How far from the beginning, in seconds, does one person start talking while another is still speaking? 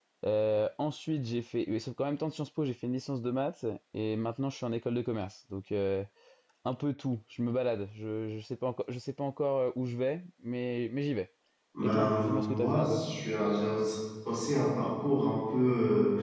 11.8 s

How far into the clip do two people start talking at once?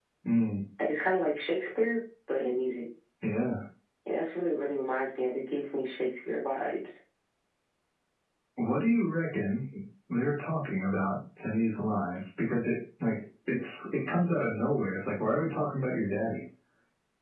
none

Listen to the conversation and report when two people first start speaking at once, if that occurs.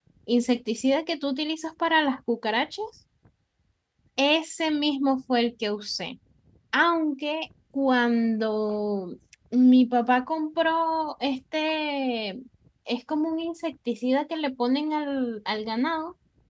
none

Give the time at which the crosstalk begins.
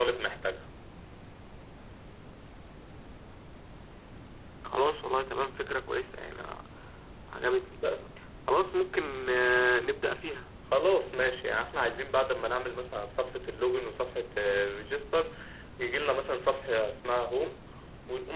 none

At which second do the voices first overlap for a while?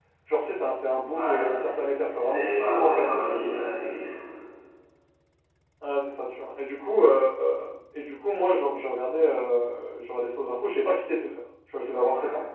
1.1 s

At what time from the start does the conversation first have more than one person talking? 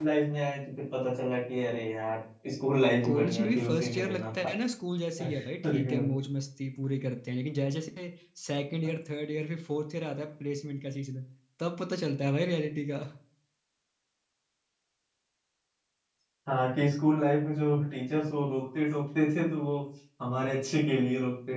3.0 s

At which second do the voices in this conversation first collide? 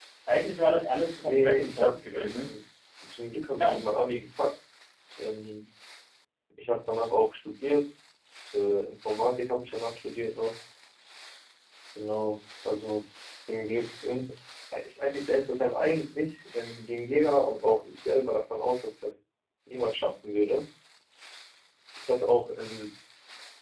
1.2 s

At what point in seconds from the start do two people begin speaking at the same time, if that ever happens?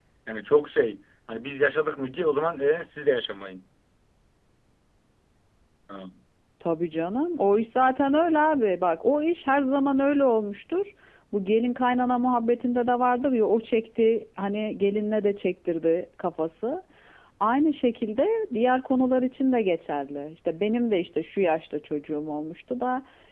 none

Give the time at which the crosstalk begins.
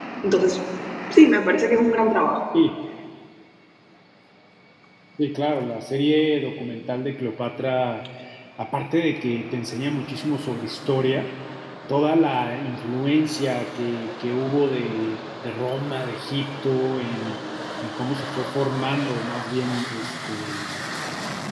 none

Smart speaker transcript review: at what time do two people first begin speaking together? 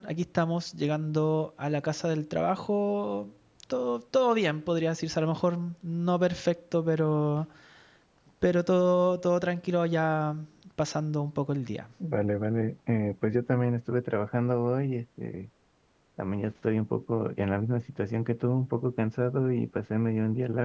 none

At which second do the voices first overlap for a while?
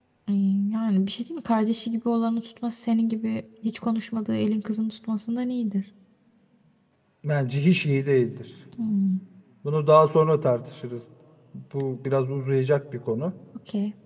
none

